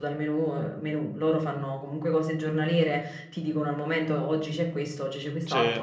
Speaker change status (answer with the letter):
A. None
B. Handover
A